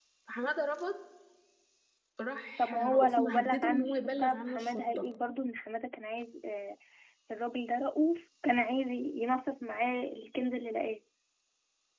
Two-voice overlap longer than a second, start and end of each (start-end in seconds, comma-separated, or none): 2.6-5.0